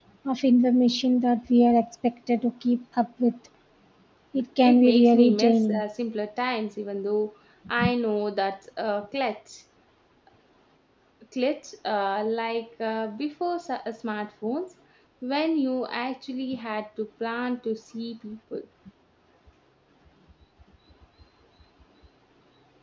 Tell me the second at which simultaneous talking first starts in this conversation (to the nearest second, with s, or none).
5 s